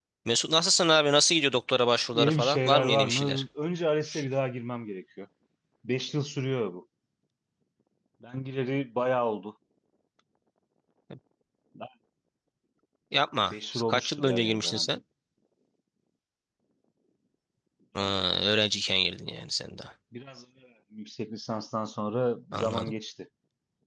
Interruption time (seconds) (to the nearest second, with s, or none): 2 s